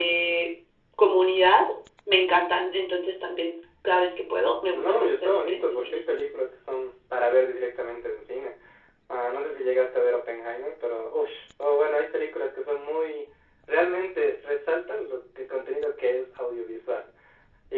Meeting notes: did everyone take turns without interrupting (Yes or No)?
No